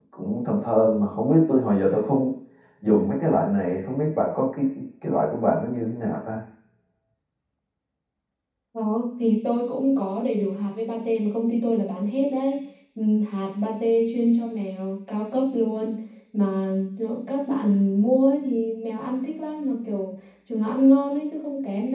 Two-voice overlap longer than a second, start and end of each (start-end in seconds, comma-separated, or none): none